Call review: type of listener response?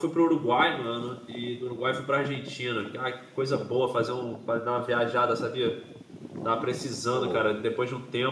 listening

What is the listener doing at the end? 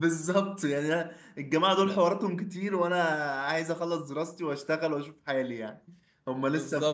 listening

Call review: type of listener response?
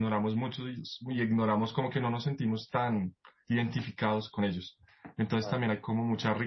listening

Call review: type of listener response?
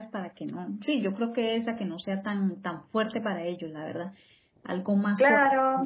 taking over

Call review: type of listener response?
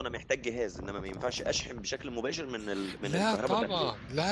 taking over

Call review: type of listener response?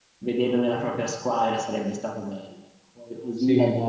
listening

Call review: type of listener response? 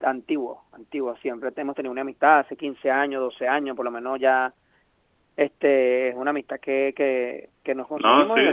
listening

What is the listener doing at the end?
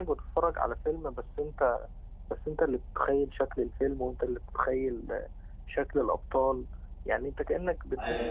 listening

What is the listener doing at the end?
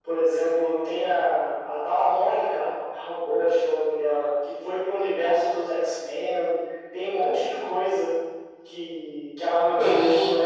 listening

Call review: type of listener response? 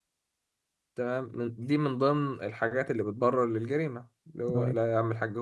listening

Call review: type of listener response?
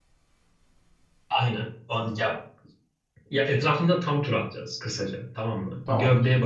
listening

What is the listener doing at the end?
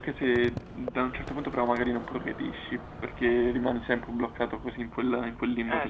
taking over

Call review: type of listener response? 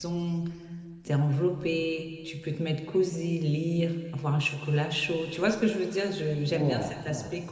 listening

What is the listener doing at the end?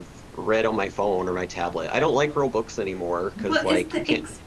taking over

